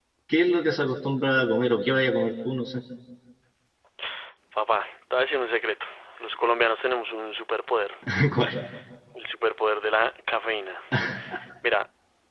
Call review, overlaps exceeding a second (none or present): none